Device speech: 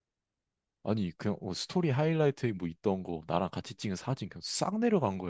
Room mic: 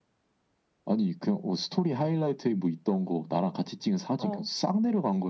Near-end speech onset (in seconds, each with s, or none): 4.2 s